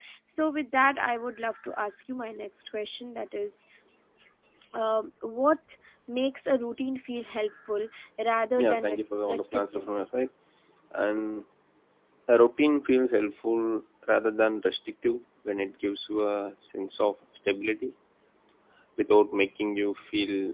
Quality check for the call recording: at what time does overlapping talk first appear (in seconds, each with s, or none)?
8.6 s